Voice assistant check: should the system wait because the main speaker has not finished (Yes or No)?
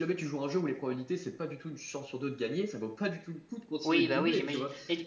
No